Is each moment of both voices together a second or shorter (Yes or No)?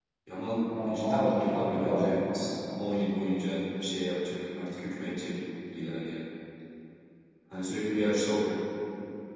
No